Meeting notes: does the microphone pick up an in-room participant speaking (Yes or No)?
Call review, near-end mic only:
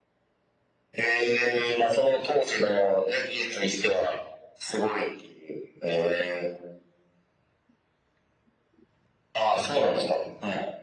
No